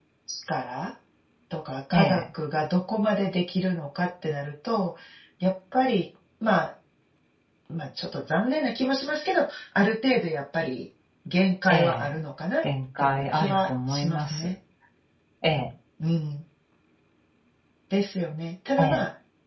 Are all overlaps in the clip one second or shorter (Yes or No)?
No